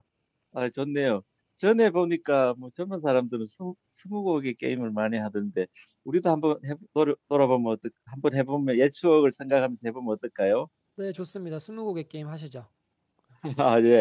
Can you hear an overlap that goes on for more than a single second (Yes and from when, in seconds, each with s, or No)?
No